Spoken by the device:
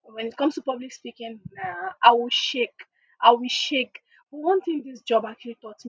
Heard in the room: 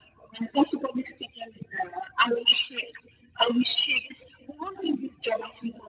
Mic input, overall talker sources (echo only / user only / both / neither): echo only